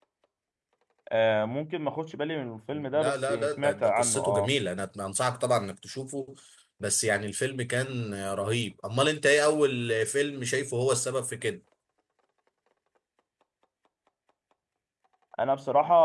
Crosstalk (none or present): present